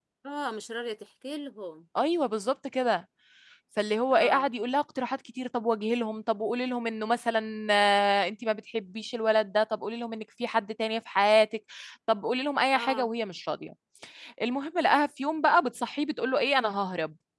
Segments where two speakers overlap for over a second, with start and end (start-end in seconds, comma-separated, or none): none